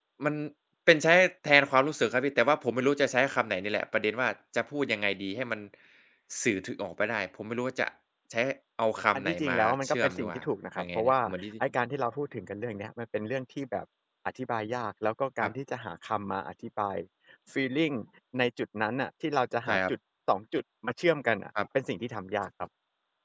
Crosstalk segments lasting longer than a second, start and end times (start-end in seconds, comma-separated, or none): 9.1-10.4